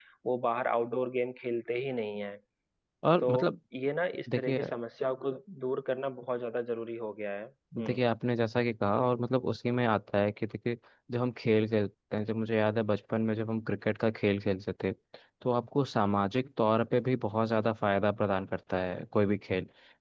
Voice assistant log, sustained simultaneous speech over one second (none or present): none